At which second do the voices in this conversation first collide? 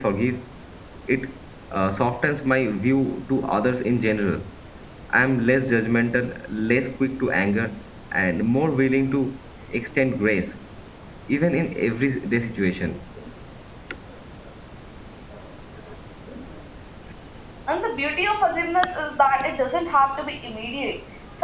none

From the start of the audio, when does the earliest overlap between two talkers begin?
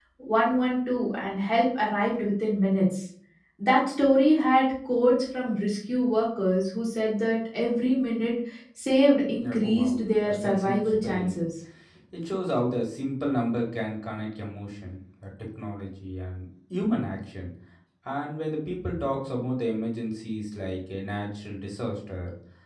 9.4 s

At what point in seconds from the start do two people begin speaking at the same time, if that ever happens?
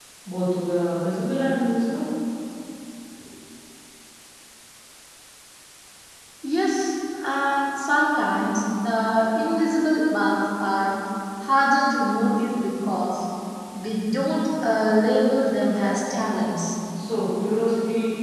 none

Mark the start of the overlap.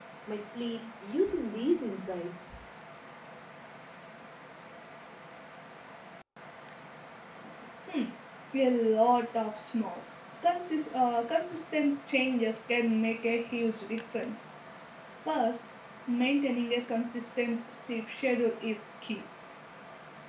none

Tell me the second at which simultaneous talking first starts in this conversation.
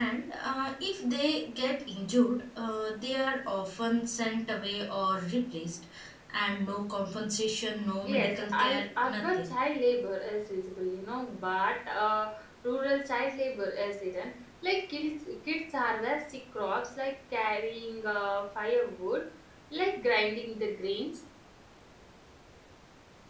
8.1 s

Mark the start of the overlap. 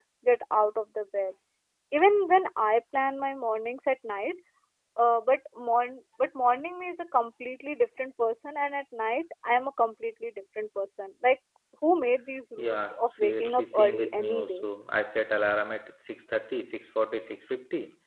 12.6 s

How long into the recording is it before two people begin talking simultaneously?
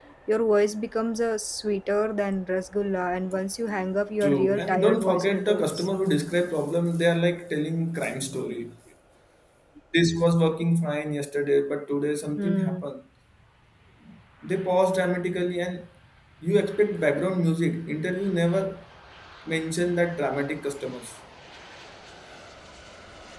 4.2 s

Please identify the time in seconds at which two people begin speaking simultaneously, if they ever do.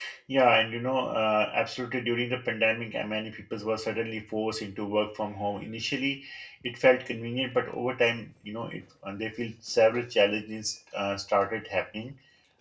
none

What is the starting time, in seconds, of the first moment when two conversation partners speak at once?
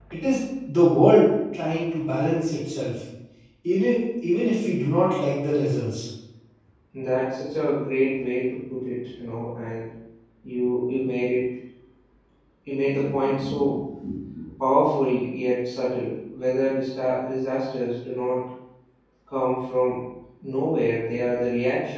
none

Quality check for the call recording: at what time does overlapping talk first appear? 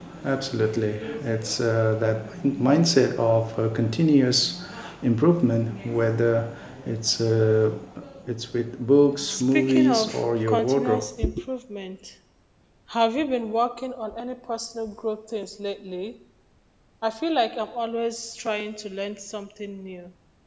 9.3 s

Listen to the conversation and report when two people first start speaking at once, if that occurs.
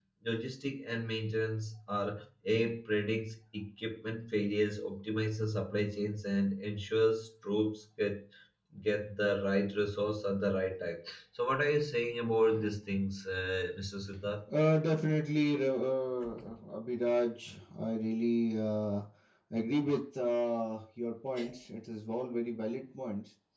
none

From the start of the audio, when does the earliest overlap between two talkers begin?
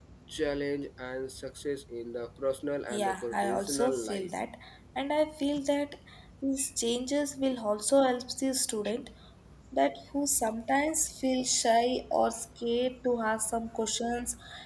2.9 s

